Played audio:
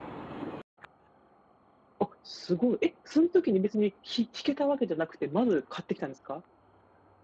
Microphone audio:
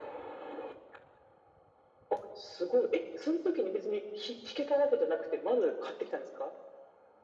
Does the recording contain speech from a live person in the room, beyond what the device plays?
No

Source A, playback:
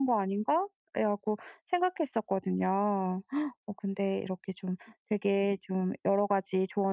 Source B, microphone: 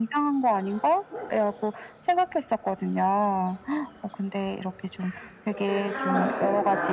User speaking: Yes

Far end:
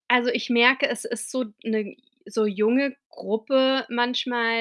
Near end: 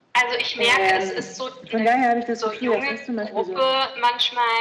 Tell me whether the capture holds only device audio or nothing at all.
No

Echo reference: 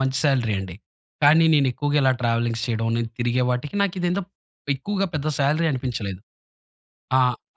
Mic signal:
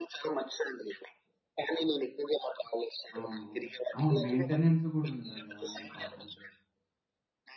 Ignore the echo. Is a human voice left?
Yes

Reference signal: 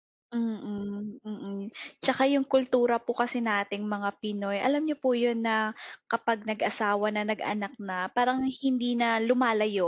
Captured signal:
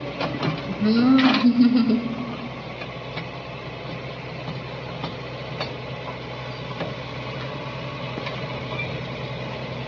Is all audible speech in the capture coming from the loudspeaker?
No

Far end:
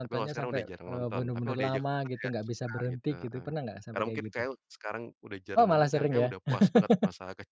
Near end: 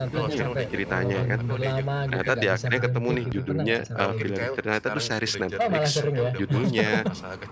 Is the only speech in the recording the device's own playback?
No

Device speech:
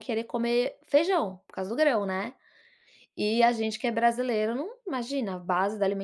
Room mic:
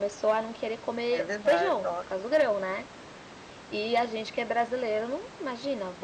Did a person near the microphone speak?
Yes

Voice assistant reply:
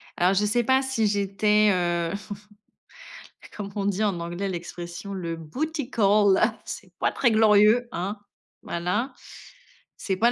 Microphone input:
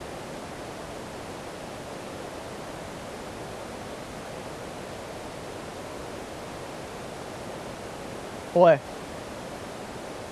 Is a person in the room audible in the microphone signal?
Yes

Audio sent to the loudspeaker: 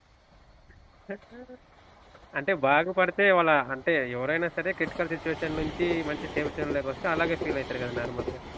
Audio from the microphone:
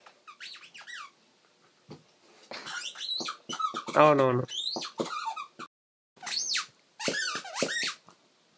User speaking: Yes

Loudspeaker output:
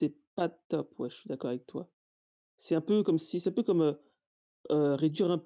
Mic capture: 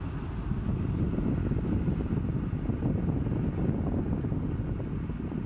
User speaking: No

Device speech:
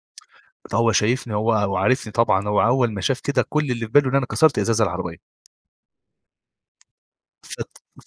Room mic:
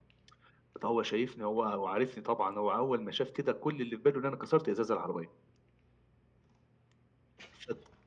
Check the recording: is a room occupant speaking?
No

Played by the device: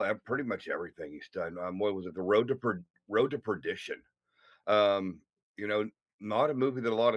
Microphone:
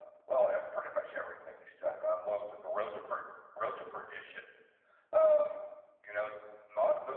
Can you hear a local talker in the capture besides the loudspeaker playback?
No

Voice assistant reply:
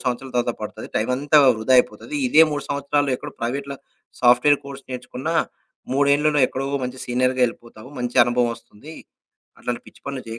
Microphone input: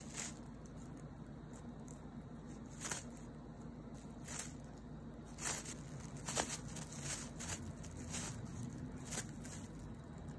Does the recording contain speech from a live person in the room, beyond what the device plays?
No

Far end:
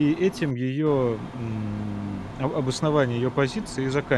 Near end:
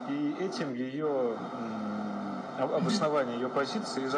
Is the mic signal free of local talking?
No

